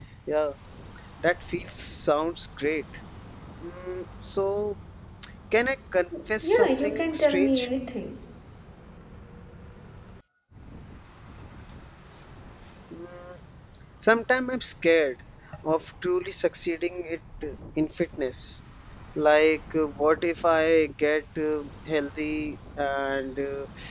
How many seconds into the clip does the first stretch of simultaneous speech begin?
6 s

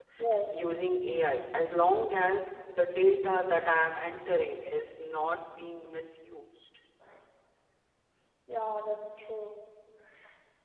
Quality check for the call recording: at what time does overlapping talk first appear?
none

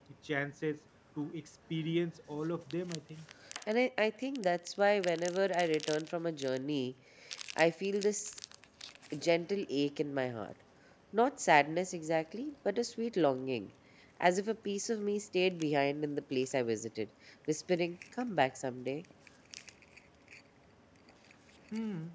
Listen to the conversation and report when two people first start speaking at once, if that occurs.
none

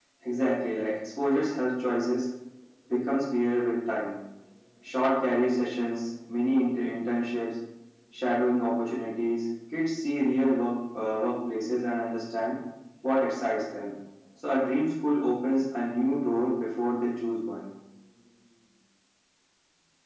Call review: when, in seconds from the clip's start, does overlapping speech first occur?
none

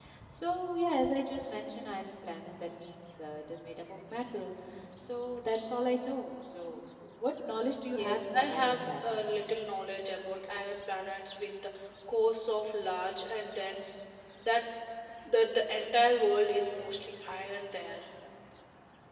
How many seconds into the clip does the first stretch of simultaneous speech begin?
8 s

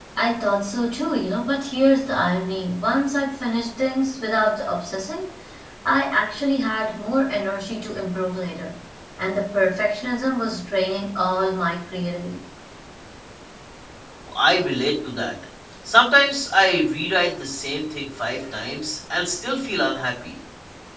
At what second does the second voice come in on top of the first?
none

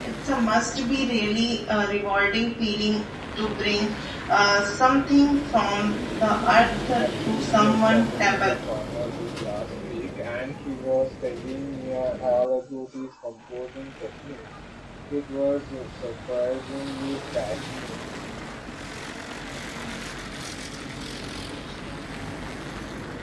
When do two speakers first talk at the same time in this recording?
7 s

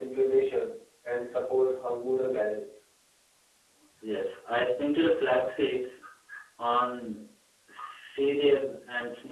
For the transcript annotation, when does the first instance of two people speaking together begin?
none

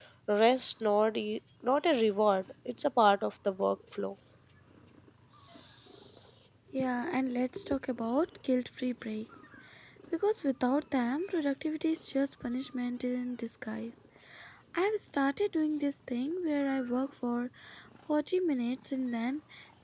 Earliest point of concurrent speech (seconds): none

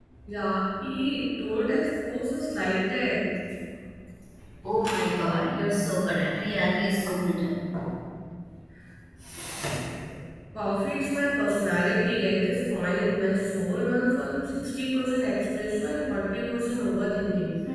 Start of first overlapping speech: none

